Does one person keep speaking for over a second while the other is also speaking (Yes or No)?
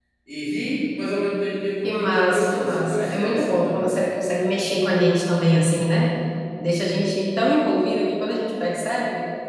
Yes